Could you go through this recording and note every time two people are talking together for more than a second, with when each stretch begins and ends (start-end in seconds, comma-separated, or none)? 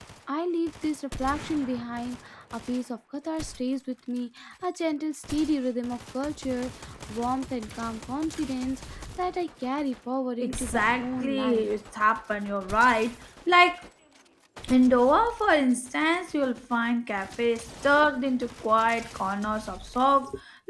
10.4-11.7